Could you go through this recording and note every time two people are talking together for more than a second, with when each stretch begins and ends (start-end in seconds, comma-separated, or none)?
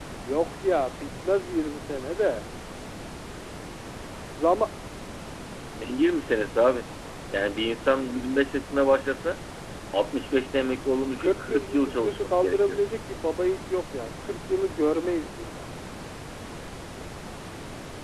11.2-12.8